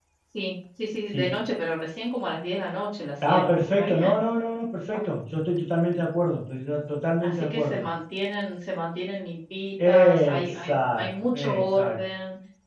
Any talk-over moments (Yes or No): Yes